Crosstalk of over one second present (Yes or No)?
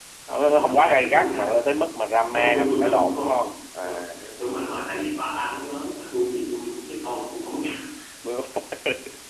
Yes